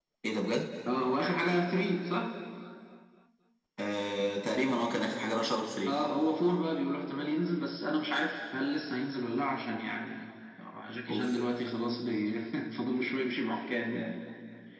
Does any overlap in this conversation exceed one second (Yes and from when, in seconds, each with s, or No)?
No